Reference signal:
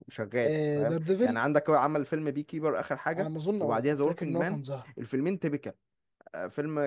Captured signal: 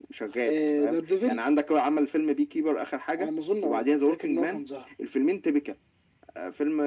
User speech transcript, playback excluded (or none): none